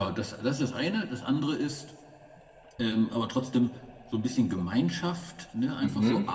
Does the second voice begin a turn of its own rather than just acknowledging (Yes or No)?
No